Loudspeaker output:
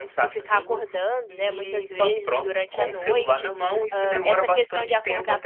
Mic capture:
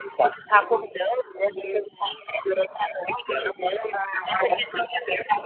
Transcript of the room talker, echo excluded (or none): none